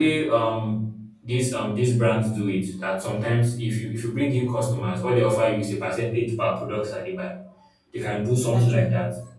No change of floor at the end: Yes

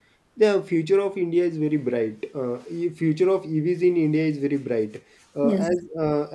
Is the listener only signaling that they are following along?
Yes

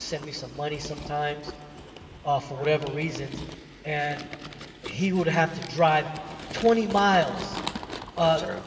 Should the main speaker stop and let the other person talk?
No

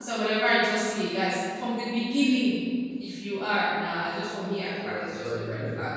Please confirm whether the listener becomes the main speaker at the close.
Yes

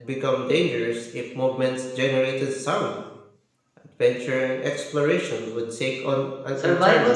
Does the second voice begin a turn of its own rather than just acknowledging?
Yes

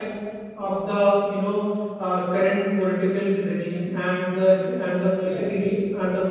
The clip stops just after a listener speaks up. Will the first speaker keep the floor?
Yes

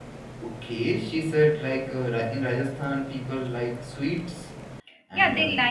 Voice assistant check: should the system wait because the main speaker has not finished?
No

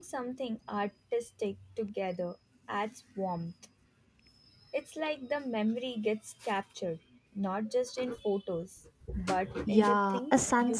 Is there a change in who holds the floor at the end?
Yes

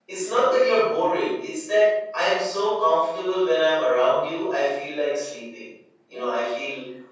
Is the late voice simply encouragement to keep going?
Yes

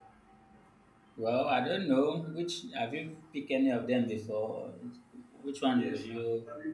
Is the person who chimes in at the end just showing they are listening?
No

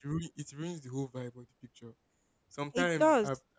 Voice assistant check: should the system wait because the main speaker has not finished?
Yes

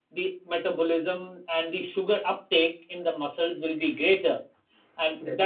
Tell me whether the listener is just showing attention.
Yes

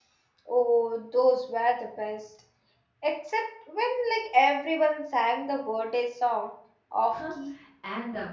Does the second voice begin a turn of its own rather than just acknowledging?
Yes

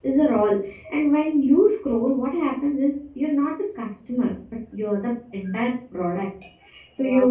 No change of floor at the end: Yes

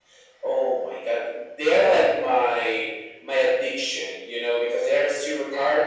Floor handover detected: No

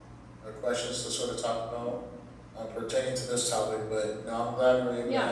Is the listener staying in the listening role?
No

